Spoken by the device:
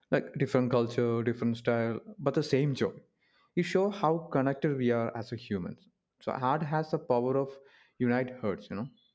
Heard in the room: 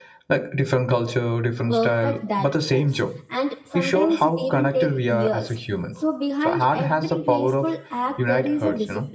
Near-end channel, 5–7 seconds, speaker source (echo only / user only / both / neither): both